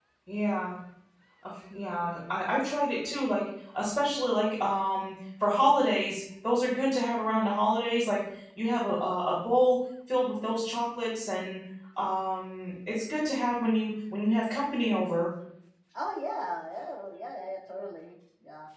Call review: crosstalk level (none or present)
none